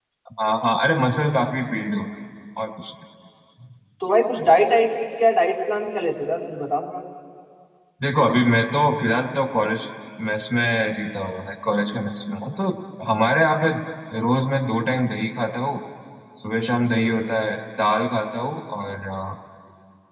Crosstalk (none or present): none